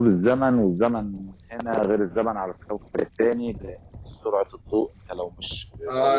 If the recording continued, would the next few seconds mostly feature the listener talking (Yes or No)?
Yes